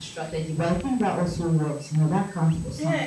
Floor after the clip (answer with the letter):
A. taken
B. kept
A